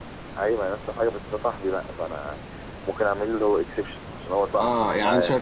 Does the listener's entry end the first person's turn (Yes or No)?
Yes